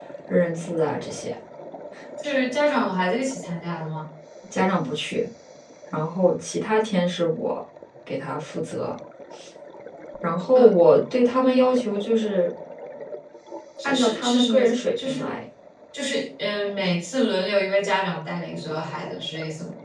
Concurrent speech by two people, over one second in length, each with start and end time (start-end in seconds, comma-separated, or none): 13.8-15.4